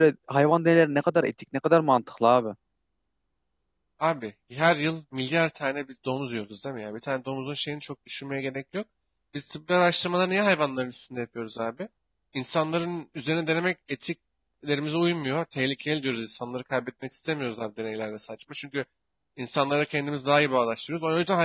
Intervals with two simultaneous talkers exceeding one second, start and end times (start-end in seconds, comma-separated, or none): none